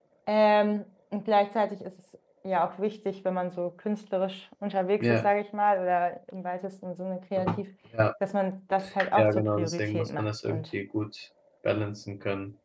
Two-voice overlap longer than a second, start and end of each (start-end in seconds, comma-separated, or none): 9.2-10.7